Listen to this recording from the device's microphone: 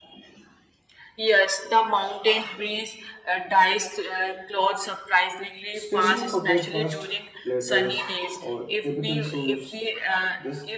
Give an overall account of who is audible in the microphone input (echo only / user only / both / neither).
both